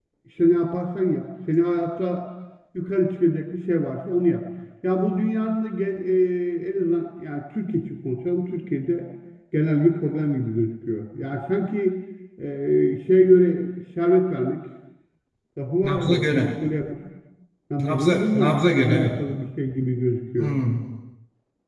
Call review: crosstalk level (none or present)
present